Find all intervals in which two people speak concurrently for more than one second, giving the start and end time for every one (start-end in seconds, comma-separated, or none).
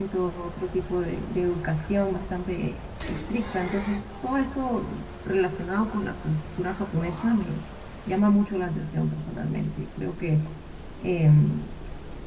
none